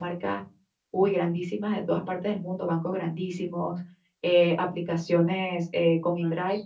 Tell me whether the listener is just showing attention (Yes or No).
Yes